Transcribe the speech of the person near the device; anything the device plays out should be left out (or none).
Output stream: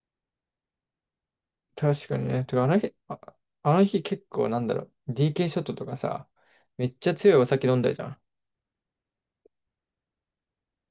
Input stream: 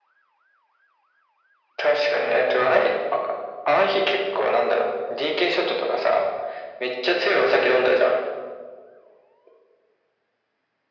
none